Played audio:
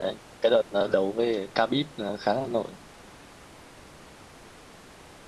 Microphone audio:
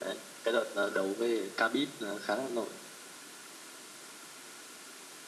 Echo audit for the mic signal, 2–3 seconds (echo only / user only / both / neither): echo only